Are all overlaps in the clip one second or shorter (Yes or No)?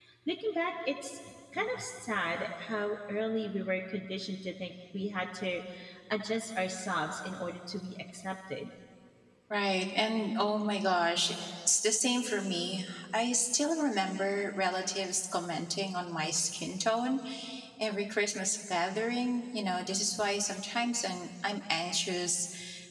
Yes